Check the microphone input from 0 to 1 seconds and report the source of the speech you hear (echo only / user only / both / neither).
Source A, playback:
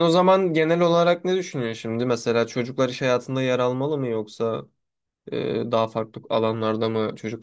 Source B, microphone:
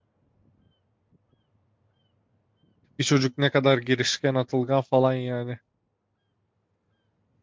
neither